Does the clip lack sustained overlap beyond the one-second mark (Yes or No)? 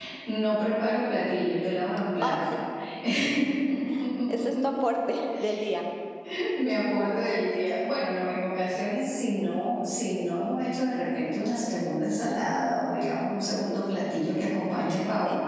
Yes